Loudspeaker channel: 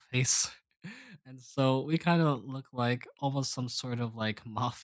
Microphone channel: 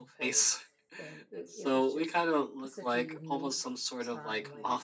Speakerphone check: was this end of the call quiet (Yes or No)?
No